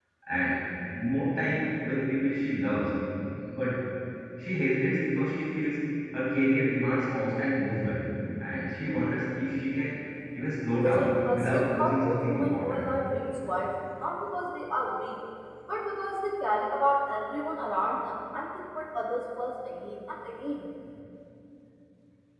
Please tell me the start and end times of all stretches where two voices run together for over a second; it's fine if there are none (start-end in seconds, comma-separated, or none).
10.7-12.9